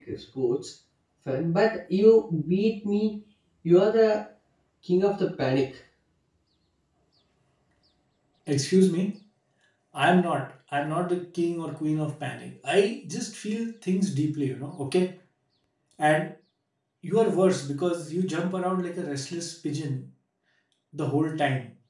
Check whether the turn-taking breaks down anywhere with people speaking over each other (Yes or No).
No